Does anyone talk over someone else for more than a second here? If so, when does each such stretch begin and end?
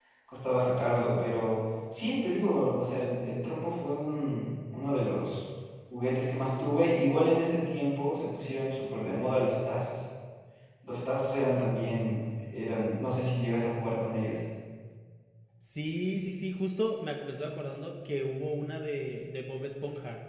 none

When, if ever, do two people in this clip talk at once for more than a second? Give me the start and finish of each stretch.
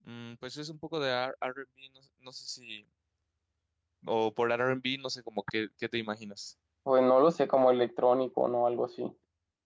none

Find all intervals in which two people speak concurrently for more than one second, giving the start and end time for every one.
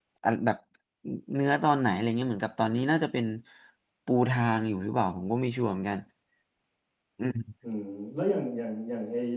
none

